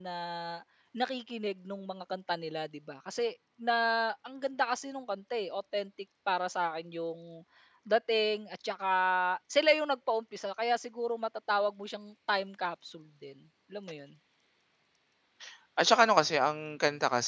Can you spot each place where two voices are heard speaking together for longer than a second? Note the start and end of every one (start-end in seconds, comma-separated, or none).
none